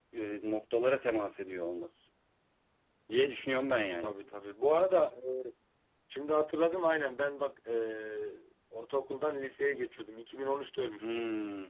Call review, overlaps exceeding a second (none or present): none